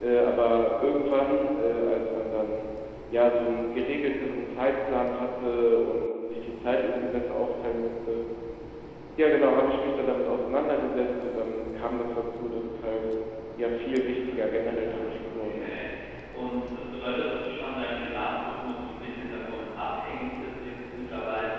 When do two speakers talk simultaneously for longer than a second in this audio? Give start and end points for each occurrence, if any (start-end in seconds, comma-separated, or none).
14.1-15.8